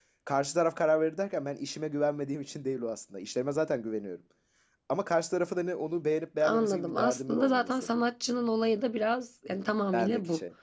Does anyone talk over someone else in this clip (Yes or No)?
Yes